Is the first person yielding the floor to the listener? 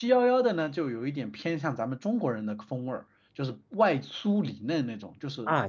Yes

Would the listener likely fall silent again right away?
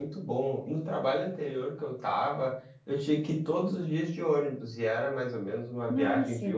Yes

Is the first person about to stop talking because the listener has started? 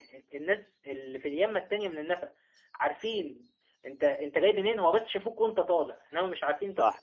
Yes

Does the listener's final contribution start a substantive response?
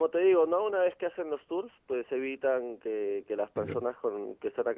No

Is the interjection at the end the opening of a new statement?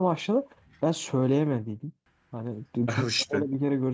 No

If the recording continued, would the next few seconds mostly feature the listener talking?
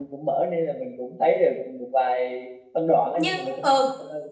Yes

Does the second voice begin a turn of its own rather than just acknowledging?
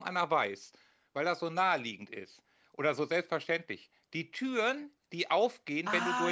Yes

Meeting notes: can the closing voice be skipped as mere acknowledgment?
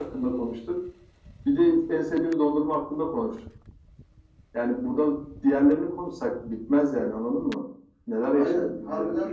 No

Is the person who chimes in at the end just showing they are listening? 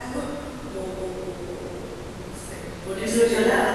Yes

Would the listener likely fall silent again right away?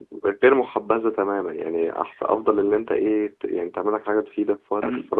Yes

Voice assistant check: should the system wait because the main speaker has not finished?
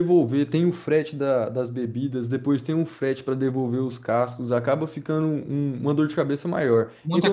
No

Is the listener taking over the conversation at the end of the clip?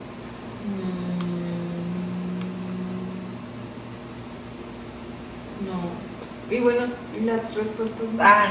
Yes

